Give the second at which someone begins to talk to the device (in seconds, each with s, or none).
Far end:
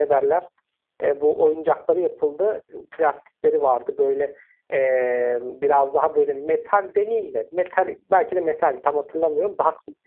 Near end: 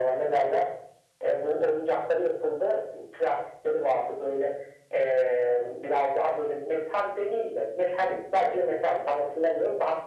none